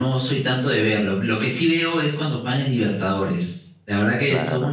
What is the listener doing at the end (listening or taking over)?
listening